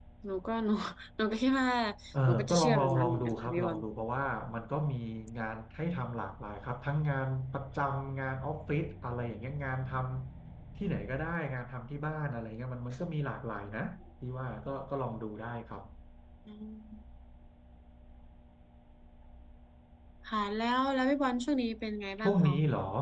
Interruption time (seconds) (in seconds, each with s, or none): 2.3 s